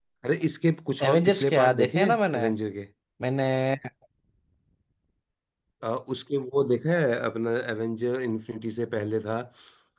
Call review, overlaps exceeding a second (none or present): present